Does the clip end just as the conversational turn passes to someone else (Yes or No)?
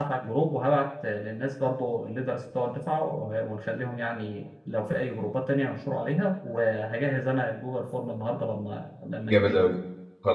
Yes